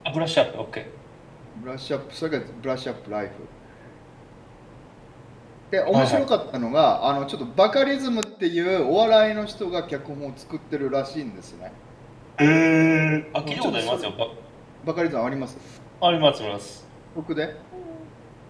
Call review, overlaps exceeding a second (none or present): none